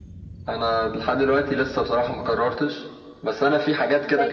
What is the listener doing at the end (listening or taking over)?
listening